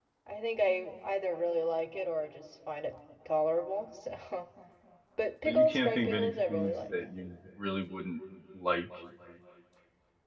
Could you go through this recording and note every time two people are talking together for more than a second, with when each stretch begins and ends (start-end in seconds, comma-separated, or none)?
5.5-6.9